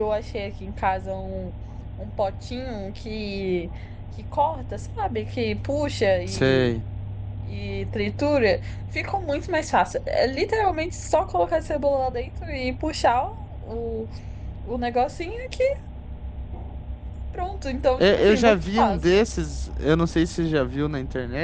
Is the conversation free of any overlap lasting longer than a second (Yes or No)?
No